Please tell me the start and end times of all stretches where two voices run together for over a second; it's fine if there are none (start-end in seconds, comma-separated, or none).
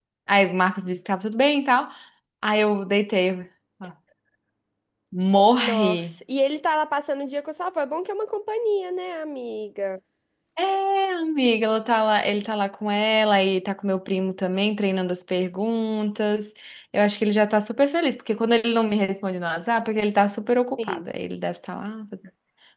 none